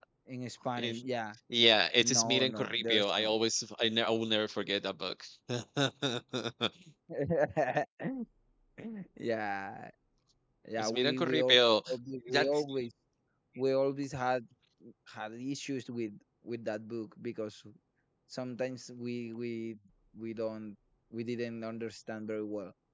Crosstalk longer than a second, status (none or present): present